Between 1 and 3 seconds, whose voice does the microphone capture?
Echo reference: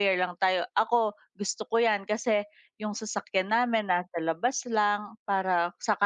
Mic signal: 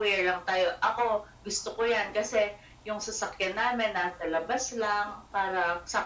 echo only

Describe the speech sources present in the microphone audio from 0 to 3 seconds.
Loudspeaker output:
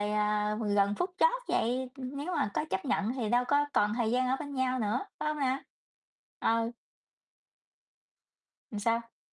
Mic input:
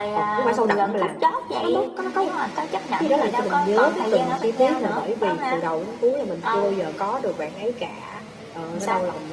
both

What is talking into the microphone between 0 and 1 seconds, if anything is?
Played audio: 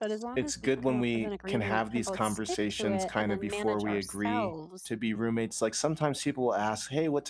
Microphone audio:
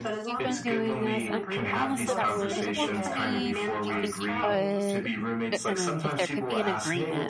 both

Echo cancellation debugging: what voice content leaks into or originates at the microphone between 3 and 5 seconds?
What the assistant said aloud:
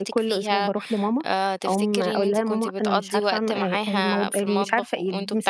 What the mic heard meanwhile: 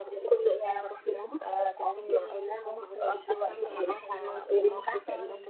both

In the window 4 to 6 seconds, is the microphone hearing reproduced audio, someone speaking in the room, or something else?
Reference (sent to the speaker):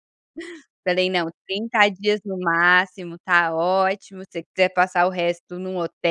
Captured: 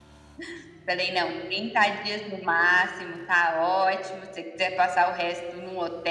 echo only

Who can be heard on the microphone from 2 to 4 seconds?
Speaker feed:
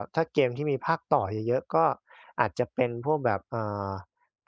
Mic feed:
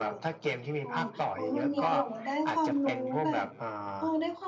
both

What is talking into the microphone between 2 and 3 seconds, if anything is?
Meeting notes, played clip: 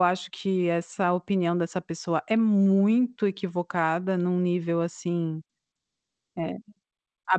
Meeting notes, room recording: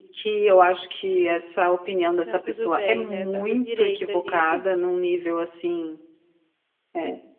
both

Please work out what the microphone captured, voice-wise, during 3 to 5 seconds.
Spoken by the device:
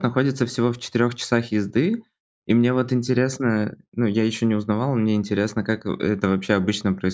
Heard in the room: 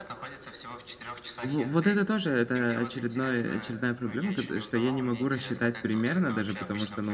both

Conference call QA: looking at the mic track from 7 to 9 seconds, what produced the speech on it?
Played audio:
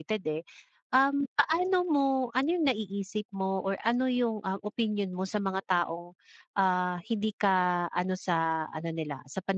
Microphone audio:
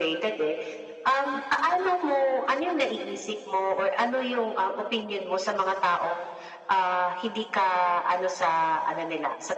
echo only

